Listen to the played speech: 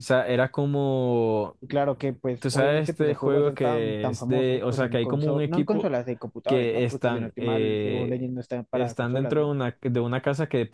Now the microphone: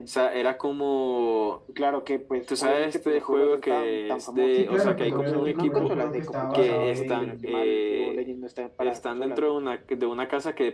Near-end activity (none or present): present